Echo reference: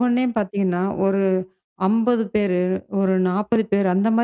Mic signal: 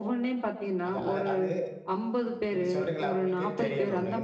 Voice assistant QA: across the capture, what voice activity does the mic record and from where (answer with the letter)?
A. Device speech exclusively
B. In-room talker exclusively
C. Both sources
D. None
C